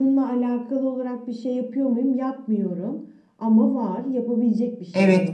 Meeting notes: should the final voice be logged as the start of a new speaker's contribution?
Yes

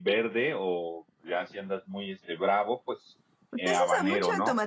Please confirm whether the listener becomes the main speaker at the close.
Yes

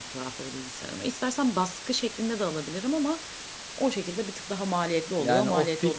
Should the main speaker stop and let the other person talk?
Yes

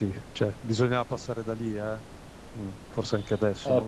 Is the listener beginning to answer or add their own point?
Yes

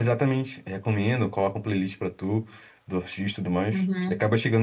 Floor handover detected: Yes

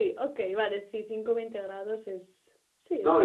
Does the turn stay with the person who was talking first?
No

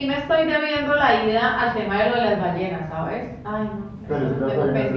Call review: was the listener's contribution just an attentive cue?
No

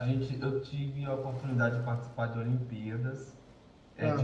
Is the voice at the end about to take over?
No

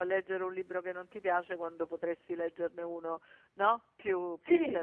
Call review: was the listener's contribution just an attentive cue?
No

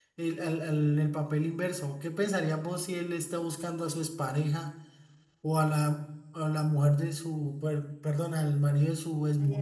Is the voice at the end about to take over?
No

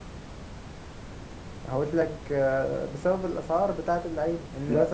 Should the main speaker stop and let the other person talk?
Yes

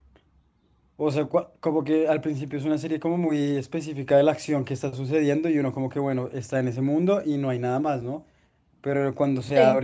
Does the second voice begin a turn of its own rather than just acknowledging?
No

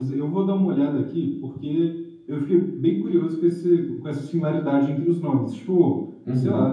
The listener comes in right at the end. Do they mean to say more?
No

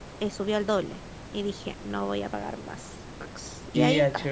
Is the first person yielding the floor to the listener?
Yes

